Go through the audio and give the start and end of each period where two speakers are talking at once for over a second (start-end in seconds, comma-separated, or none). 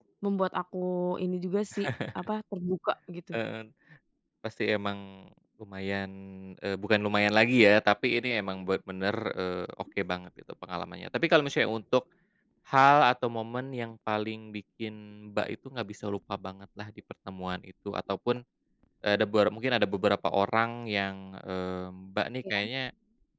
none